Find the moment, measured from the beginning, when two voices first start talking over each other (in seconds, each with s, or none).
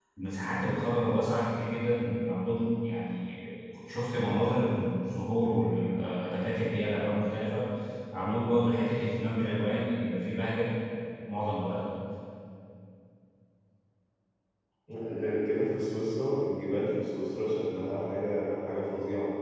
none